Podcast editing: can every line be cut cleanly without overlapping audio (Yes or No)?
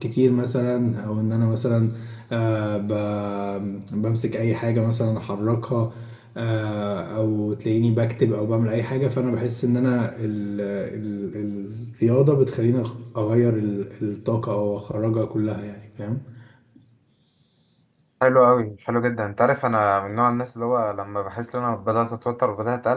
Yes